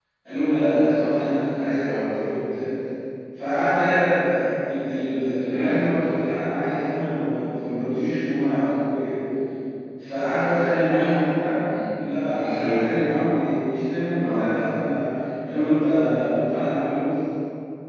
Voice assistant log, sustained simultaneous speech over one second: none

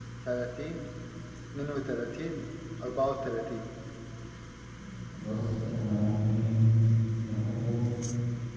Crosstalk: none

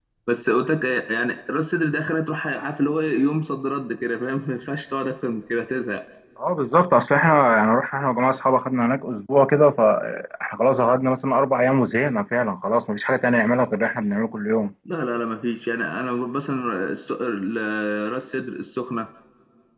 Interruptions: none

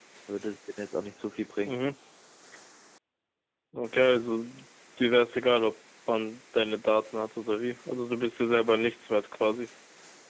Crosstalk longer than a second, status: none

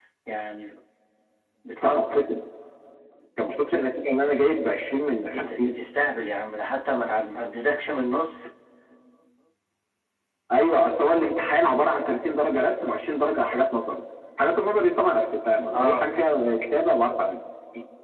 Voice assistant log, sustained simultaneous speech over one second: none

